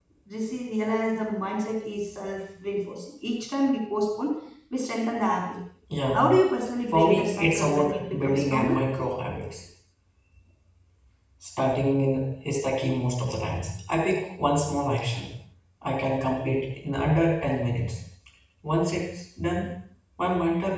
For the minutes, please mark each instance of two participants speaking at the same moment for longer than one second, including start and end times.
6.9-8.8

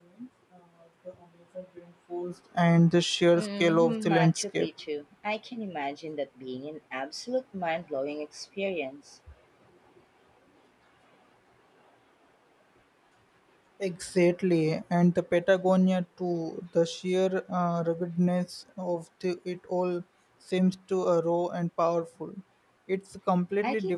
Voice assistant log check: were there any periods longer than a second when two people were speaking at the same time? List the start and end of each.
3.4-4.7

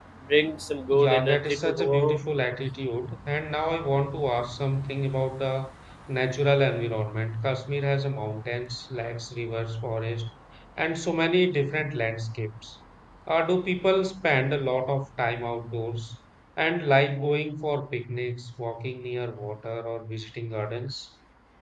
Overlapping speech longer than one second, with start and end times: 0.9-2.2

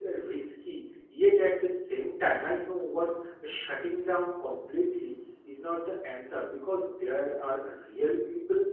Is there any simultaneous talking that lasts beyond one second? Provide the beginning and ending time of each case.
none

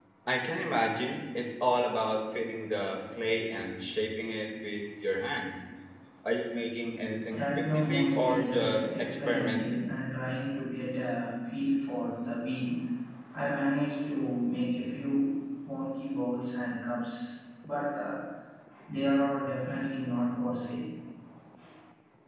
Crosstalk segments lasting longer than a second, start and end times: 7.4-9.8

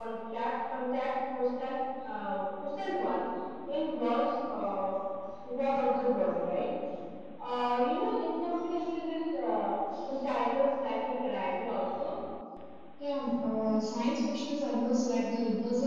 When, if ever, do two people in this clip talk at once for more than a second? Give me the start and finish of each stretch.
none

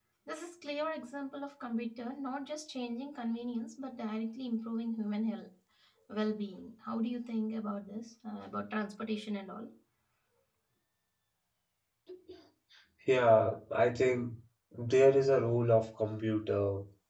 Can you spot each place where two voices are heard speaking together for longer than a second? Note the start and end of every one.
none

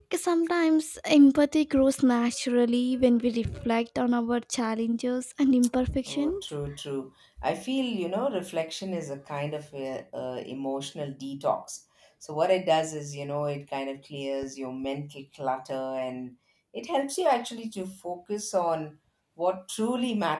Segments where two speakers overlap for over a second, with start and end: none

